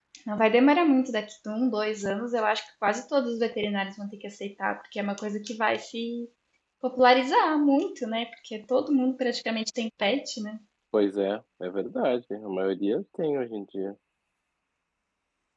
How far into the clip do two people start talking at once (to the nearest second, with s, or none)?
none